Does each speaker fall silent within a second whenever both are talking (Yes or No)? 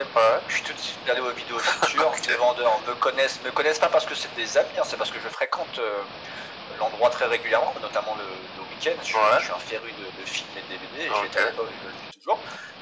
Yes